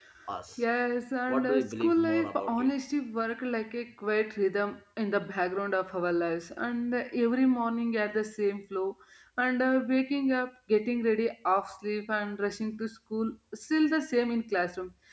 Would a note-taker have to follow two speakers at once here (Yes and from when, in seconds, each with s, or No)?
Yes, from 1.3 s